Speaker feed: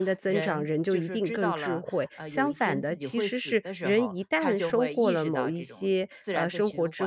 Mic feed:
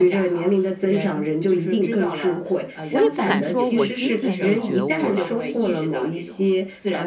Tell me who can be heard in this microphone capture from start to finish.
both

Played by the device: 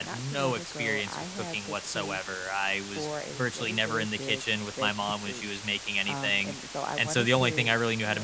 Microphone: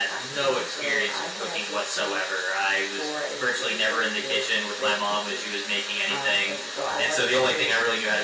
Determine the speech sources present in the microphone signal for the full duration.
echo only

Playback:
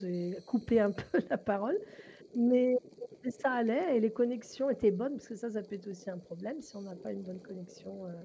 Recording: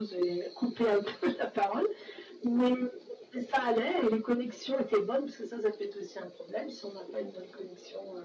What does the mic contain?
echo only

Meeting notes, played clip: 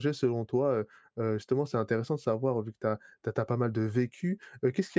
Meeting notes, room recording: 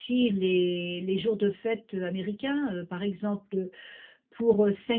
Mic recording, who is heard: user only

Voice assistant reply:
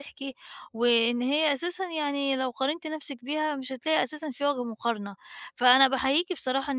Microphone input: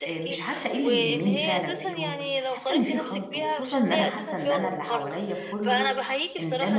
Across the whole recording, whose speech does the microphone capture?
both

